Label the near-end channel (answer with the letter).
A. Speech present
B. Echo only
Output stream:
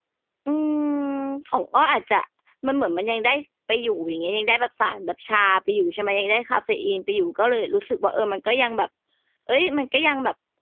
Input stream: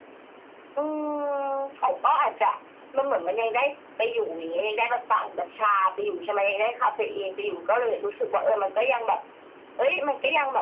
B